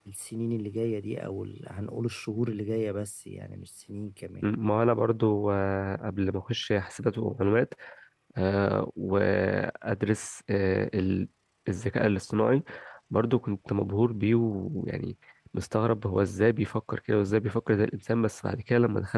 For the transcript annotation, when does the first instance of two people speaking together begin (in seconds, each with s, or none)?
none